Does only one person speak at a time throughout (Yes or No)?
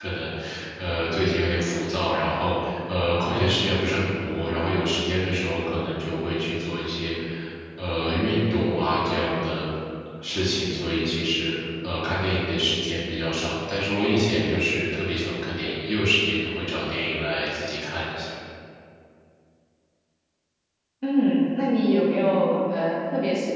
Yes